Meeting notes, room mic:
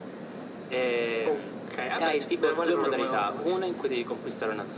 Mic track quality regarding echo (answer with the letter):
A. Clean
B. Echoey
B